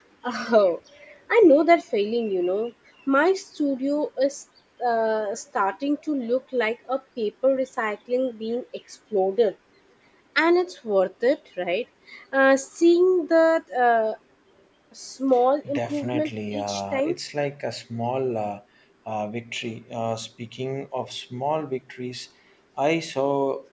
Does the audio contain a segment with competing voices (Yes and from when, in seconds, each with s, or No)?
Yes, from 15.7 s